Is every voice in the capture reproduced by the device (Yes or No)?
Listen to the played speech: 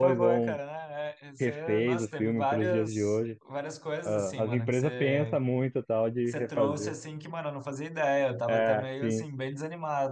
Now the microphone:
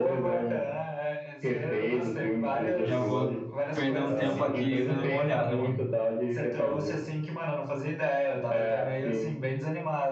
No